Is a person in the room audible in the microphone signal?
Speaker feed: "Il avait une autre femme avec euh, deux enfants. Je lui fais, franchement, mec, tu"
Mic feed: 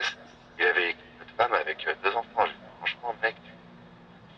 No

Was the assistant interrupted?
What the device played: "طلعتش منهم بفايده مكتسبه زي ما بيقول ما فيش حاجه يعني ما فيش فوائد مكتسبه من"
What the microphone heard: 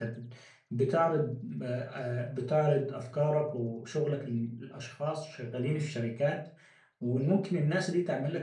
Yes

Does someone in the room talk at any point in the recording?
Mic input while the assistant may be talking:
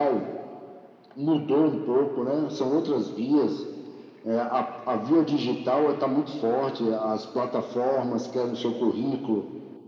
No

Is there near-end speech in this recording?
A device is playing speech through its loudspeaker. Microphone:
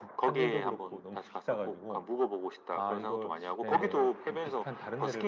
Yes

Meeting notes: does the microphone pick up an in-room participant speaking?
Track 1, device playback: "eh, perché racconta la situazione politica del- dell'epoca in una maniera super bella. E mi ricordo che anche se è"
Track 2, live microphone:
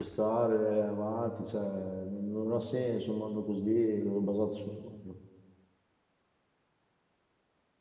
Yes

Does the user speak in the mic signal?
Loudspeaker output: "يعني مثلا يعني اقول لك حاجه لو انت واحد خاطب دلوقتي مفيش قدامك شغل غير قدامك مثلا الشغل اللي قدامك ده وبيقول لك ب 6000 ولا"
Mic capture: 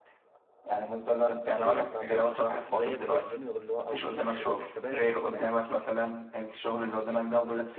Yes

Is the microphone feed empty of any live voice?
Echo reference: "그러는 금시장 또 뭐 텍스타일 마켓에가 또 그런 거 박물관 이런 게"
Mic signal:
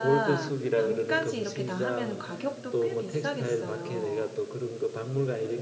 No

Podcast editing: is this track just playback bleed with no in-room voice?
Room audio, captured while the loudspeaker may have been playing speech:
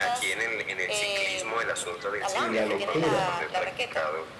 No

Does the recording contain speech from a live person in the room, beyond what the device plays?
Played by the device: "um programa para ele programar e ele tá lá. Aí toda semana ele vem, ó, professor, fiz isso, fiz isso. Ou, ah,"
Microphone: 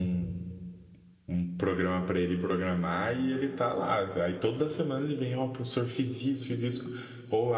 No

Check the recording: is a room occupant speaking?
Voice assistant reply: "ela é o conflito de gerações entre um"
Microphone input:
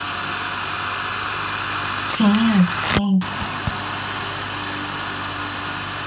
Yes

